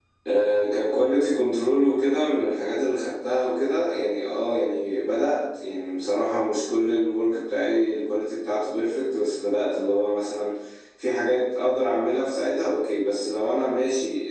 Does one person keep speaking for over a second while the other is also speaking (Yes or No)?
No